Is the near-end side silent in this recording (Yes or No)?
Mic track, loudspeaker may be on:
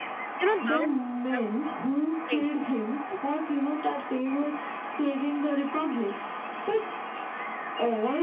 No